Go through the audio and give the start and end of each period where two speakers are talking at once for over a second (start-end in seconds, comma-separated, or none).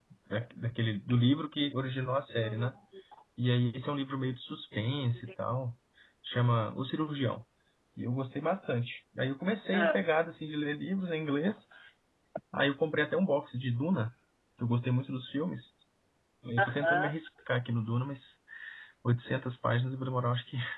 none